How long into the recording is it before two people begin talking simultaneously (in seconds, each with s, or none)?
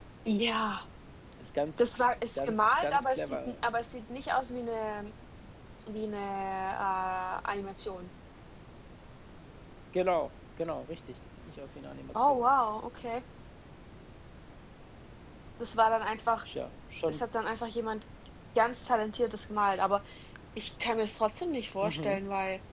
2.4 s